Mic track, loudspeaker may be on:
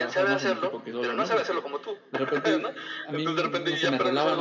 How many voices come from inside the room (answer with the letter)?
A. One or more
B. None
A